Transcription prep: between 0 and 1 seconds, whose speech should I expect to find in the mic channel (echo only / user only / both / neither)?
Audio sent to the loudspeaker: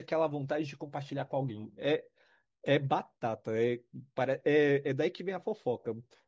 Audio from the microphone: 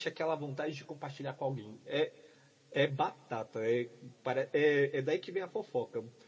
echo only